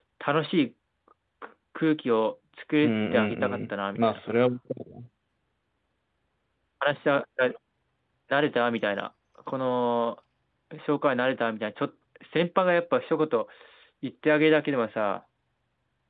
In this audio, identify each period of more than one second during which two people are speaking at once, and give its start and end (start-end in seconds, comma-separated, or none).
2.8-4.2